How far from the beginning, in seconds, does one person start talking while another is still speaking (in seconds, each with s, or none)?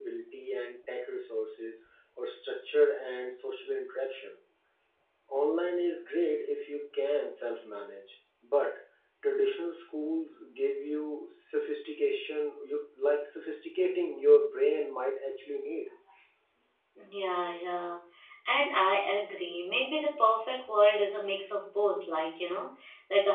none